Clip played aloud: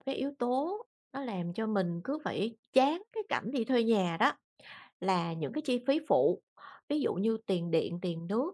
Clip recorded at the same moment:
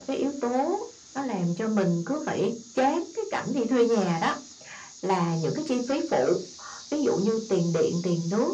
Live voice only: none

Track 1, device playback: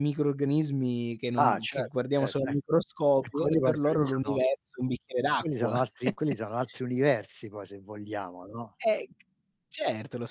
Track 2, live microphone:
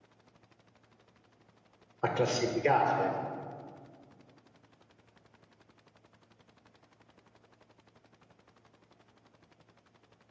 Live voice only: A classificarle.

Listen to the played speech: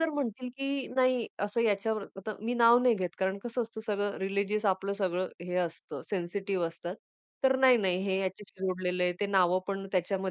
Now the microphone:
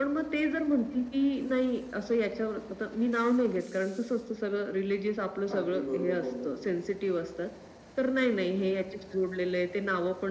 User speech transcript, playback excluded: अगदी बरोबर बोललात तुम्ही.

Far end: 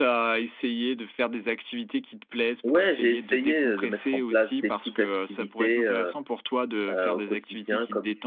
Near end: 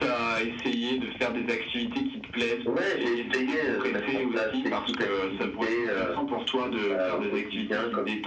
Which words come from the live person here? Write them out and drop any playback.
none

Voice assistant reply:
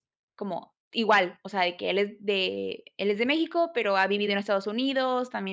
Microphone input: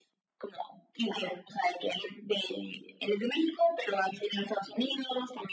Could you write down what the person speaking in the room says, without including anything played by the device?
none

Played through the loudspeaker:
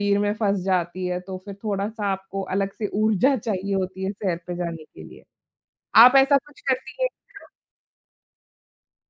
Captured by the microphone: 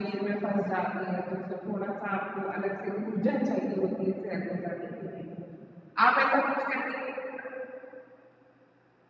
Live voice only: none

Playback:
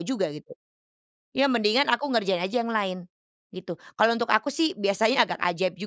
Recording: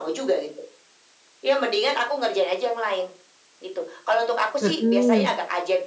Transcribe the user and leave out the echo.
Mhm.

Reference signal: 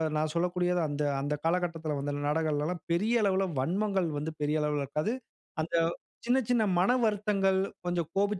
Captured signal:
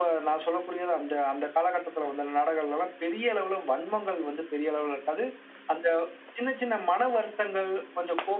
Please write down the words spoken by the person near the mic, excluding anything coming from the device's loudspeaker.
none

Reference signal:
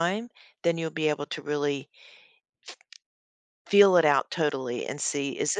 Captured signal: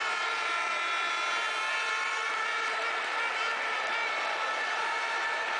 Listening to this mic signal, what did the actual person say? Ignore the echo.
none

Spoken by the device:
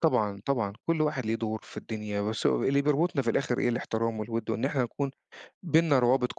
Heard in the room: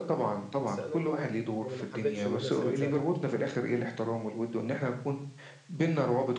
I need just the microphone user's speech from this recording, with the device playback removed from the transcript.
بس أنا ما يعني ما حبّيتش إن أنا أسيبك زعلان آه.

